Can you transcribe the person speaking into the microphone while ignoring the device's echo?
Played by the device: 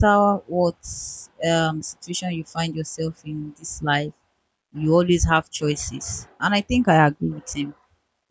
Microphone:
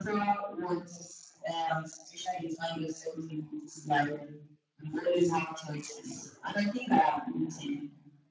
none

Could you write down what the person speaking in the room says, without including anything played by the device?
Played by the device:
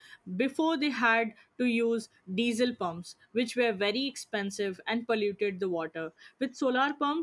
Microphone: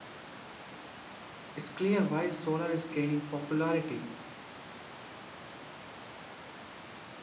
it's clear why solar is gaining popularity.

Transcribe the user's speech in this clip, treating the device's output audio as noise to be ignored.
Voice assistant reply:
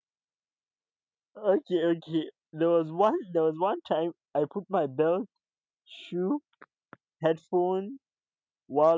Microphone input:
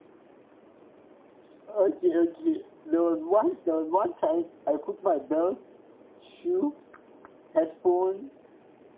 none

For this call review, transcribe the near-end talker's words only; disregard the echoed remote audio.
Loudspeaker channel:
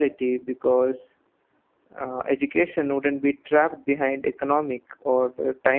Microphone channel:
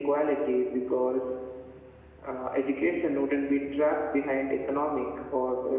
none

